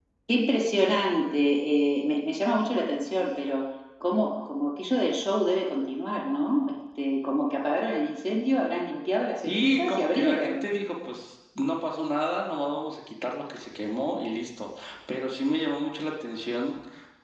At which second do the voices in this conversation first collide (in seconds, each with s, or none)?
9.4 s